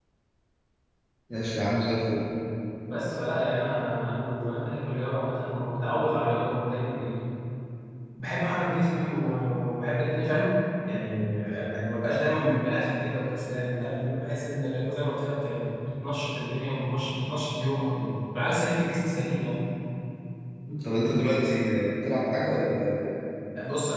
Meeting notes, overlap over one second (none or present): none